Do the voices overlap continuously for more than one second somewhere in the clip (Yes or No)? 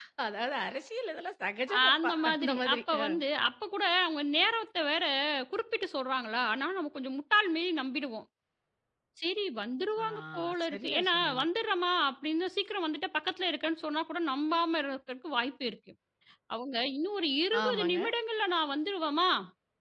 Yes